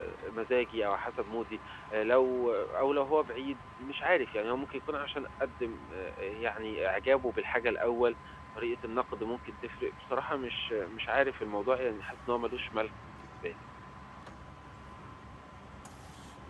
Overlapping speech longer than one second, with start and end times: none

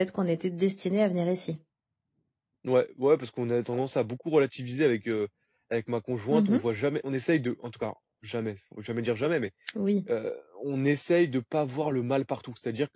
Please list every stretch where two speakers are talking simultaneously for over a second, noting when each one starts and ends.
none

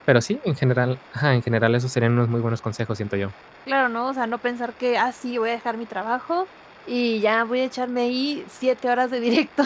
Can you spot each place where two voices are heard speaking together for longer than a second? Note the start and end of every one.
none

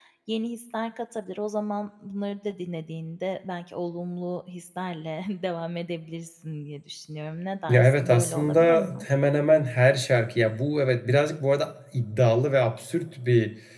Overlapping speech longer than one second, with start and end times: 7.7-9.0

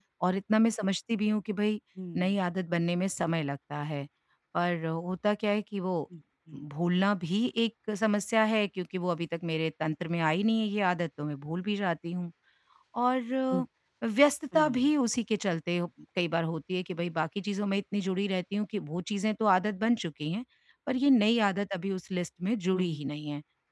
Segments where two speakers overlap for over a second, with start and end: none

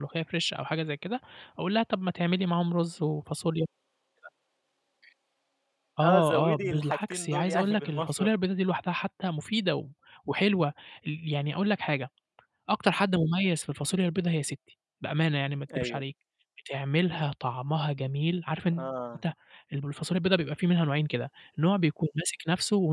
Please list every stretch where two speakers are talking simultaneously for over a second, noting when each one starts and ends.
6.0-8.3

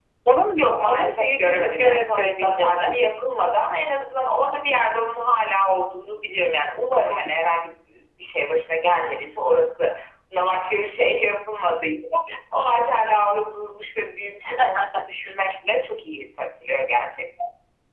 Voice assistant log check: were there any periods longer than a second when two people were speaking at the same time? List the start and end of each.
0.5-3.0

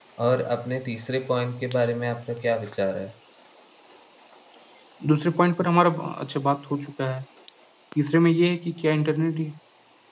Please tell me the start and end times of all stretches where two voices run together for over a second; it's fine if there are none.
none

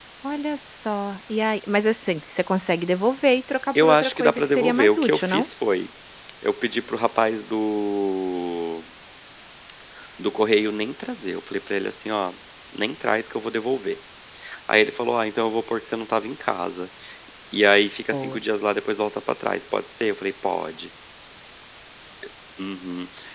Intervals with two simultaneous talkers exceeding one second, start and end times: 3.8-5.5

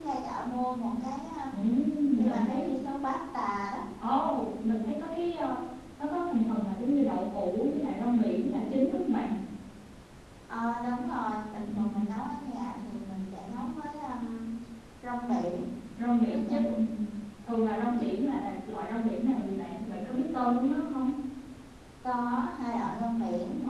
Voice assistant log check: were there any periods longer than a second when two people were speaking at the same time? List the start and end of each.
none

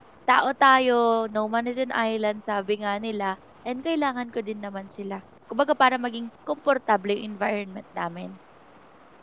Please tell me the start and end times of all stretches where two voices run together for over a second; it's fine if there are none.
none

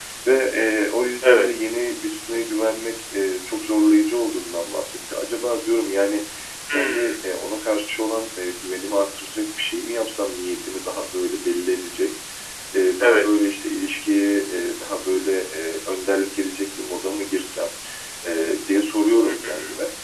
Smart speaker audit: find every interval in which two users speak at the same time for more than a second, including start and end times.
none

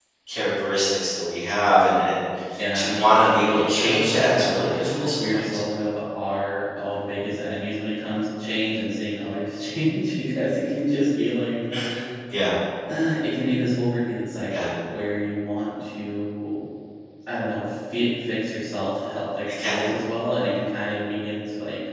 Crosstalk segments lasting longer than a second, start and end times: 2.7-5.4

